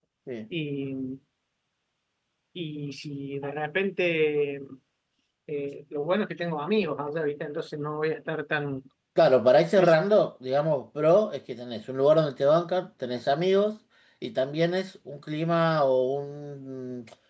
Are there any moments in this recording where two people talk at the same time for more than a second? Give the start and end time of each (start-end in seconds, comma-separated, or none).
none